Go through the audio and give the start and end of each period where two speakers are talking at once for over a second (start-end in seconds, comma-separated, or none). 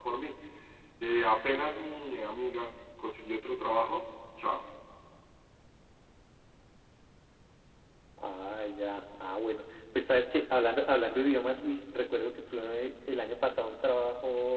none